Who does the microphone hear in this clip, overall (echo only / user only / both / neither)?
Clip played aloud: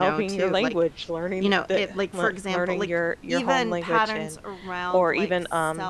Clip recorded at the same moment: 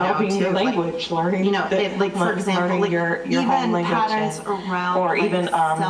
echo only